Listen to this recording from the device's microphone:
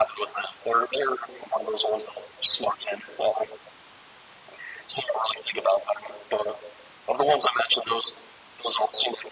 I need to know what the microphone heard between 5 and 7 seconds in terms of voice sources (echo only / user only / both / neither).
echo only